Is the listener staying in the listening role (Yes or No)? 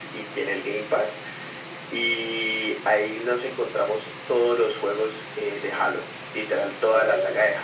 Yes